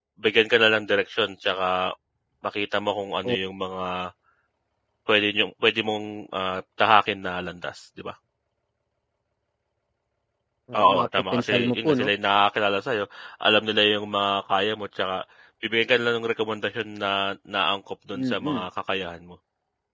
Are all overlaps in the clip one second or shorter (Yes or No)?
No